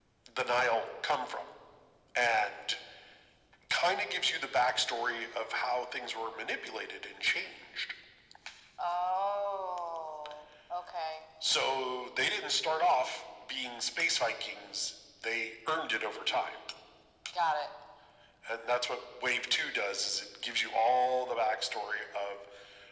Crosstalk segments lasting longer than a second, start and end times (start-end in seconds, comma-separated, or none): none